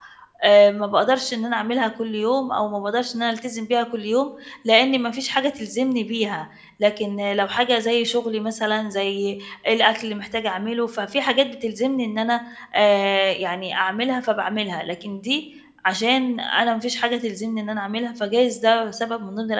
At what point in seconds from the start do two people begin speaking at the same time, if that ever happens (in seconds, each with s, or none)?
none